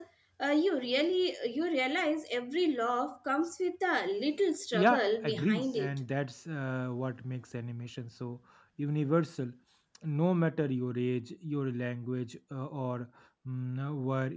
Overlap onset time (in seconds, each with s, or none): 4.7 s